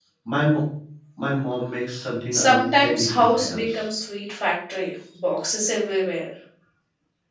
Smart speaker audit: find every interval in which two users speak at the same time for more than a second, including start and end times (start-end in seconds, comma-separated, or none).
2.3-3.8